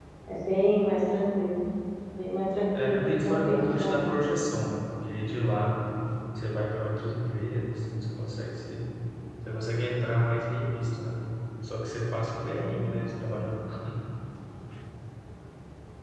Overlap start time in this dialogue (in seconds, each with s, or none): 2.8 s